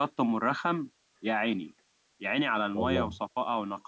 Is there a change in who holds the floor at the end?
No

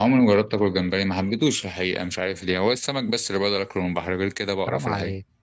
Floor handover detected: Yes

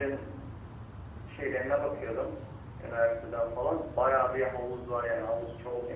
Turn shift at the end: Yes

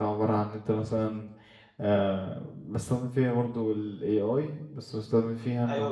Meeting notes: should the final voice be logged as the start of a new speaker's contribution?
Yes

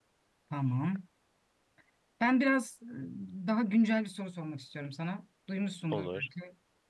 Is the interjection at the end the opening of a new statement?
No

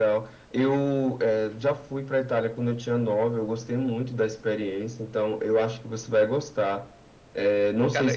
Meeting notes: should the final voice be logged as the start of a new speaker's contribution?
No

